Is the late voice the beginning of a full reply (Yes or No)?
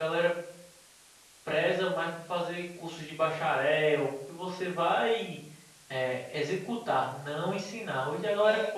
Yes